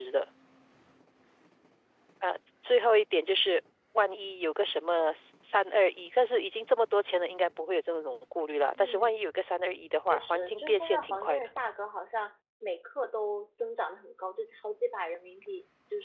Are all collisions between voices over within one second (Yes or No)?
No